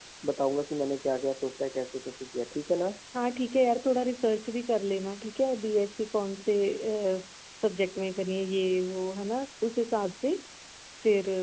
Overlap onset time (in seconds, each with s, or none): none